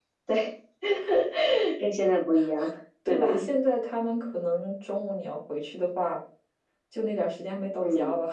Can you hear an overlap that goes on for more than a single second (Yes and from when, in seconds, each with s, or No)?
No